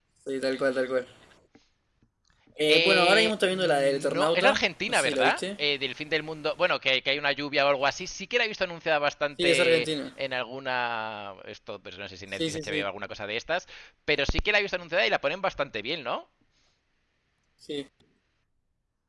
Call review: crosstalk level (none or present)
present